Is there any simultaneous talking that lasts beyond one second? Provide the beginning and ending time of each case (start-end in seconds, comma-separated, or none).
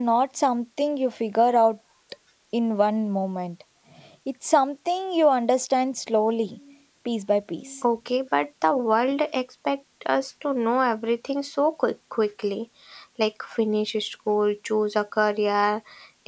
none